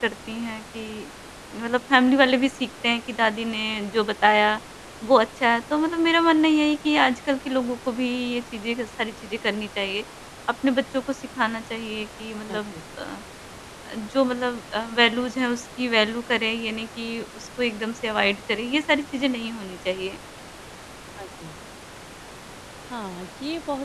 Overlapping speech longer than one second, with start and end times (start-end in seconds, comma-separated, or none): none